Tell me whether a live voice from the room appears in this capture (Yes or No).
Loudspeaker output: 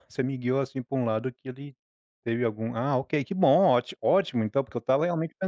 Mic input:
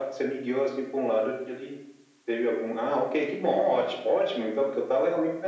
No